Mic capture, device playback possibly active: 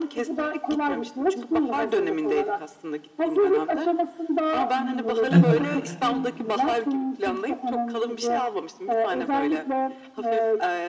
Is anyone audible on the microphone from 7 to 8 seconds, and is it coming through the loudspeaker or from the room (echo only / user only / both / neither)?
echo only